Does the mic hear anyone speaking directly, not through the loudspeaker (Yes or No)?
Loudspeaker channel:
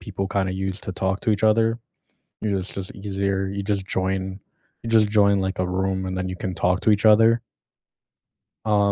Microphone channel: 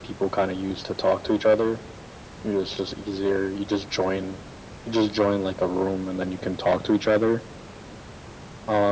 No